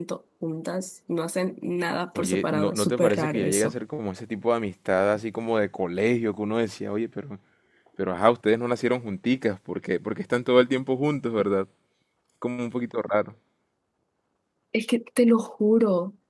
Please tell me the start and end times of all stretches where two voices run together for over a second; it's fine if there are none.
2.2-3.8

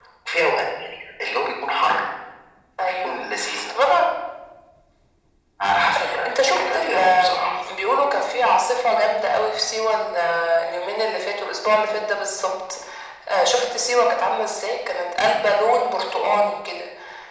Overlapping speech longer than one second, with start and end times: 6.2-7.5

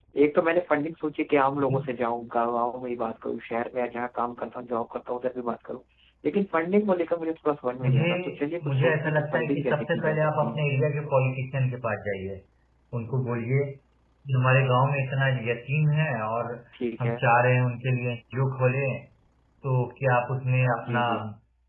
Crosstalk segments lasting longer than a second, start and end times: 8.6-10.6

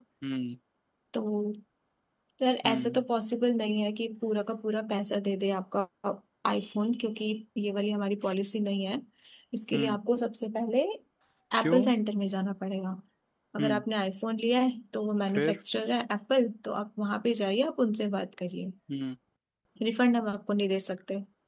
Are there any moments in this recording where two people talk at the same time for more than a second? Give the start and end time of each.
none

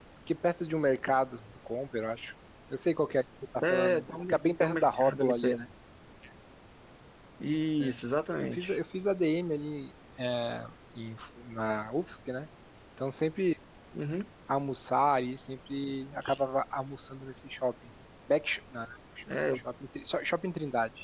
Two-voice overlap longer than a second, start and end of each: 3.7-5.5

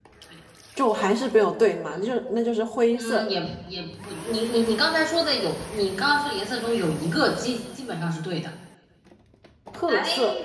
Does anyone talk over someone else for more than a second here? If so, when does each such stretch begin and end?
none

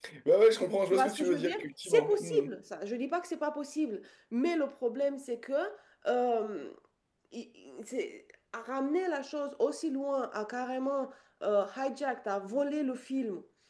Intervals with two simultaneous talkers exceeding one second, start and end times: 0.9-2.5

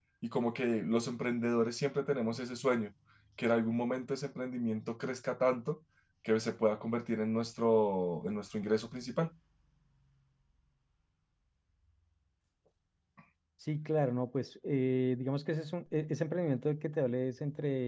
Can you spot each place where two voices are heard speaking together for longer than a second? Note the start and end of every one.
none

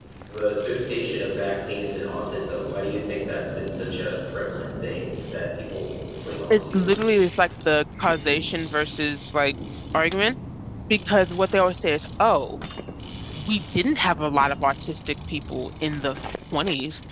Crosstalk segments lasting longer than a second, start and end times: none

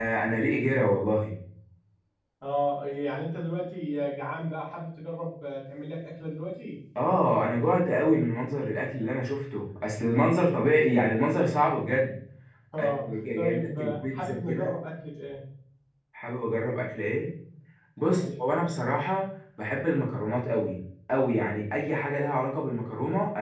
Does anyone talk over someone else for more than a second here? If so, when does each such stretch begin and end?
12.8-14.8

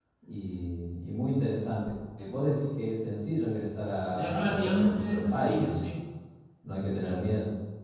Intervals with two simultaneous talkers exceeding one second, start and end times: 4.1-5.8

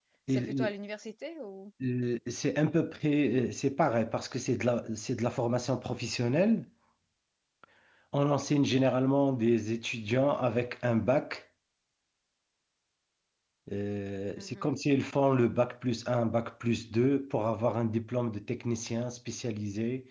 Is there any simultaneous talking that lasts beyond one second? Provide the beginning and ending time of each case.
none

